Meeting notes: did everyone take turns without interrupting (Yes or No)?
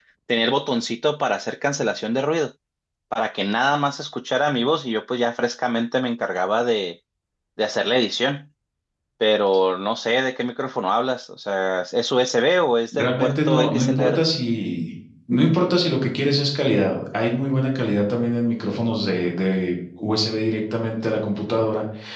No